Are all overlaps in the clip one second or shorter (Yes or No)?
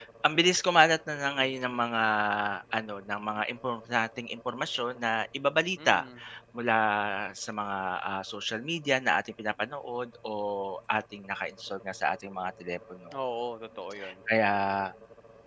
Yes